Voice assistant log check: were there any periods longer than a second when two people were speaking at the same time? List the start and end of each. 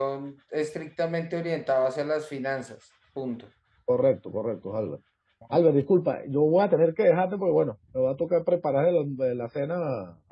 none

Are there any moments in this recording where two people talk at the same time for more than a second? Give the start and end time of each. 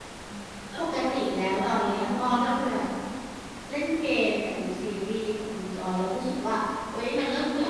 0.8-2.8

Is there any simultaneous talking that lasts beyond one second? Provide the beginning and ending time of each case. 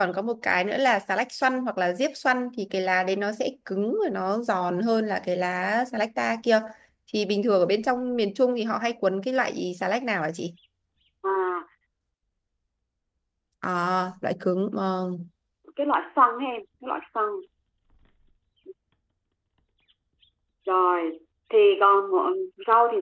none

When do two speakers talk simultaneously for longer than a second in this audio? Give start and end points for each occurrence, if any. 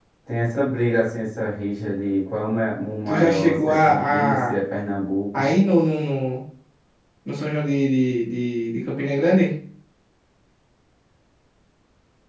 3.1-4.5

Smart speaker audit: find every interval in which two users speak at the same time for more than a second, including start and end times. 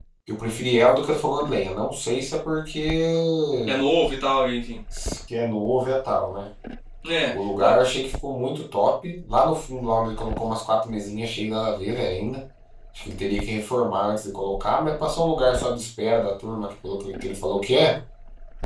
none

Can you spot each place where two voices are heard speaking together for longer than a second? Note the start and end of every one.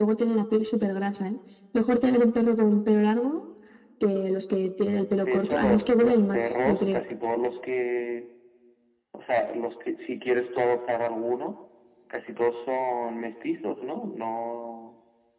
5.2-7.0

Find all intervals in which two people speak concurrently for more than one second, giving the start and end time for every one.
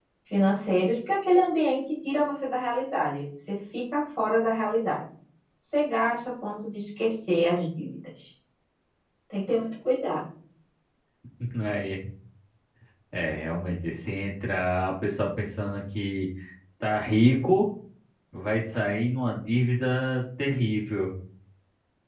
none

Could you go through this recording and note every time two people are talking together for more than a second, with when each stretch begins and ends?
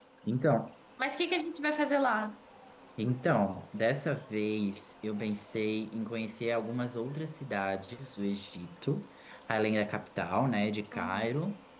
none

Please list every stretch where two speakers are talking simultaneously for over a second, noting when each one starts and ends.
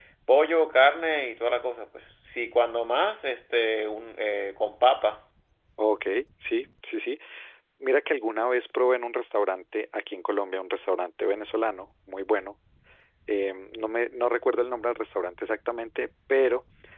none

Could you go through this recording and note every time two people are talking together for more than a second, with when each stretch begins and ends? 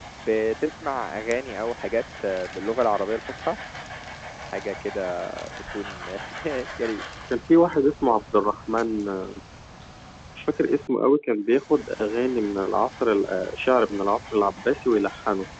none

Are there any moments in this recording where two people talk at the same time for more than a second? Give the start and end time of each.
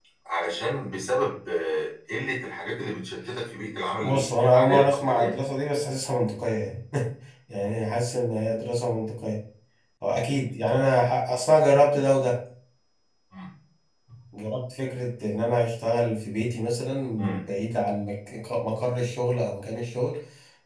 4.0-5.3

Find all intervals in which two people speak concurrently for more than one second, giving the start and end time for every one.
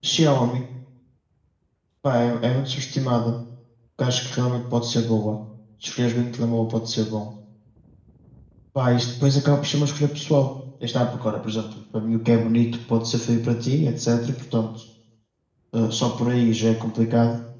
none

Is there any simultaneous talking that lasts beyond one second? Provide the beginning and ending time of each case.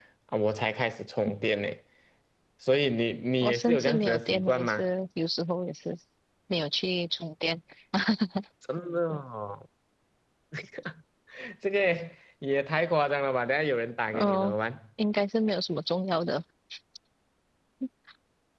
3.4-4.8

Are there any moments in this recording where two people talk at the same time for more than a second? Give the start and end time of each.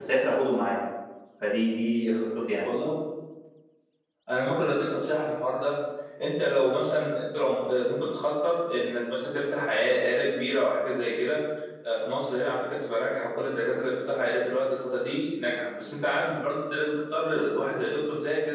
none

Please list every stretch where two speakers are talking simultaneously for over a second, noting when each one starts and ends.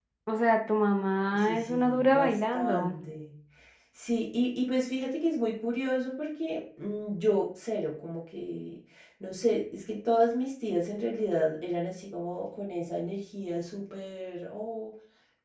1.3-3.0

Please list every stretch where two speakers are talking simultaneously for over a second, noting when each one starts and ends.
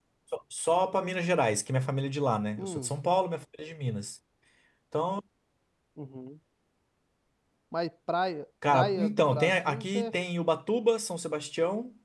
8.7-10.1

